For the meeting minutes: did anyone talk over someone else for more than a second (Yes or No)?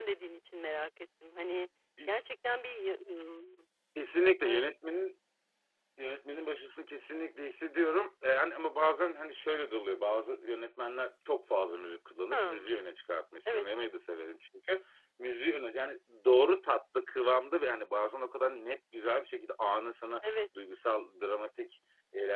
No